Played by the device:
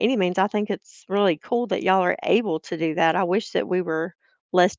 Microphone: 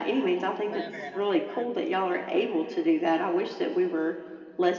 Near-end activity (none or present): present